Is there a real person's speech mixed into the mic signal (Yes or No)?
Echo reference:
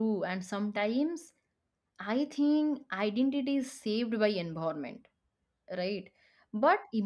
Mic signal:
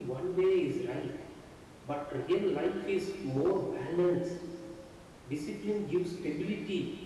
Yes